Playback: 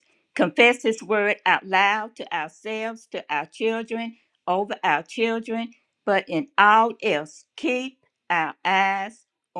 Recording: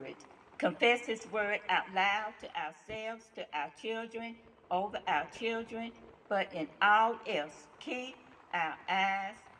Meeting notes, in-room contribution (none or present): none